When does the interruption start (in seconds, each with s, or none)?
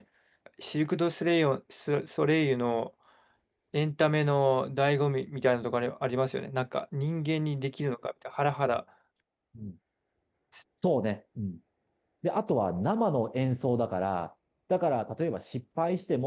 none